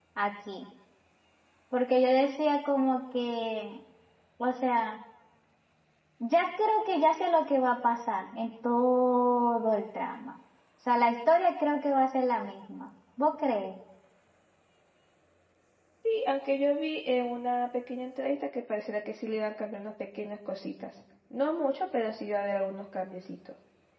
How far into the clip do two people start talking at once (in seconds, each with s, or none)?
none